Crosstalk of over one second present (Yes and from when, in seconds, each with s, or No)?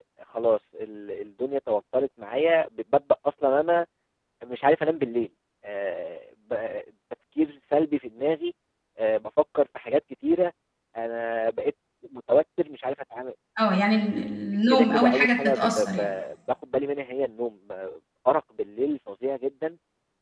Yes, from 14.7 s